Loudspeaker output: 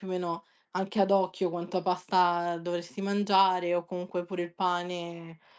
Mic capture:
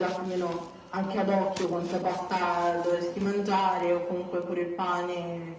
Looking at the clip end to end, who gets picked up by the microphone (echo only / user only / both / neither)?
echo only